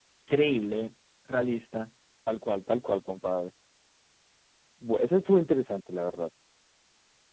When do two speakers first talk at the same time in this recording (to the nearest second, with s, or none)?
none